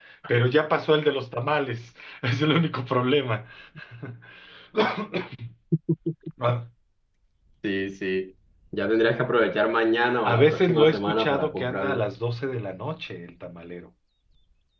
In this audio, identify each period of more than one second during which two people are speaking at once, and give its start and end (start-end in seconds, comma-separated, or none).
10.2-12.1